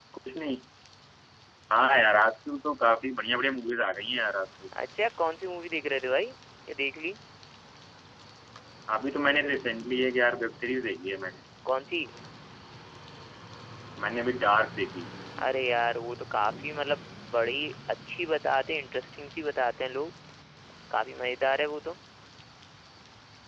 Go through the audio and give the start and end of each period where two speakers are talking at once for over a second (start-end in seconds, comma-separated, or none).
none